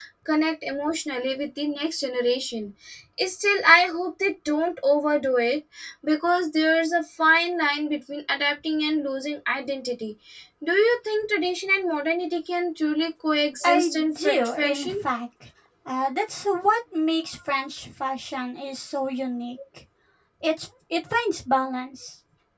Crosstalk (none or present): present